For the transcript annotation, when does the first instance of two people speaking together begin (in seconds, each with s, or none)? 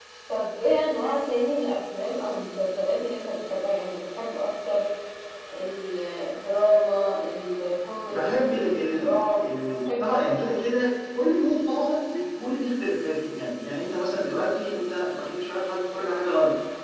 8.0 s